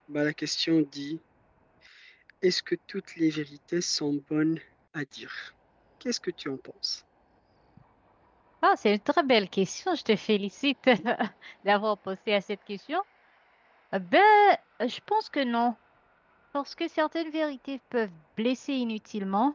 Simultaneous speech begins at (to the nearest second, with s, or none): none